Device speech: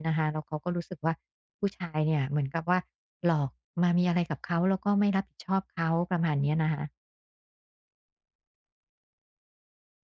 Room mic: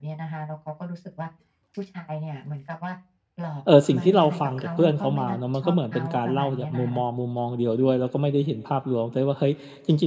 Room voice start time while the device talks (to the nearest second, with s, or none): 4 s